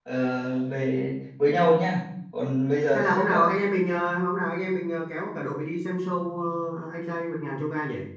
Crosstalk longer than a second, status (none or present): none